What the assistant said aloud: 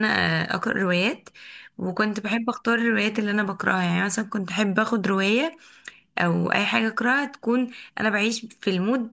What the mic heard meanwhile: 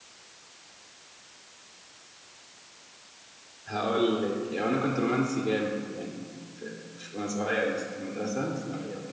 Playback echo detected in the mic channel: No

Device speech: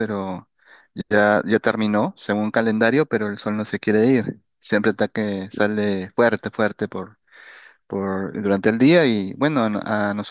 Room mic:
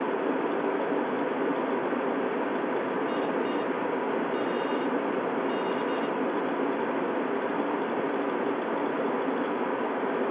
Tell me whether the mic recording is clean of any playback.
Yes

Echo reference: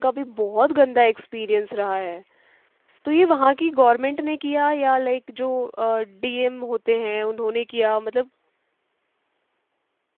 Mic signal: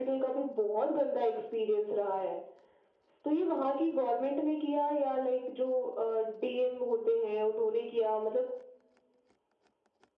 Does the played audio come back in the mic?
Yes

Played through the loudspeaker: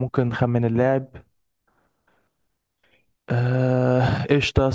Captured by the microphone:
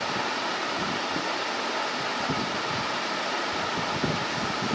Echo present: No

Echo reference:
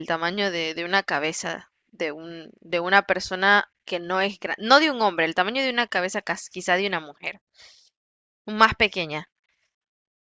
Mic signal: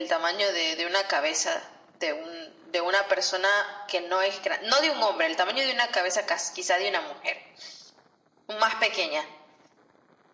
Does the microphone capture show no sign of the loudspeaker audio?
No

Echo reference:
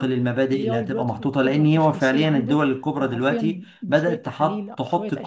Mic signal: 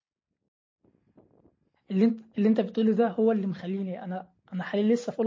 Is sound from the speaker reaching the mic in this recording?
No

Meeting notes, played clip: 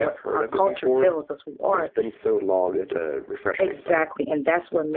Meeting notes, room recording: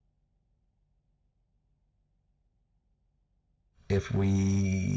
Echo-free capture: Yes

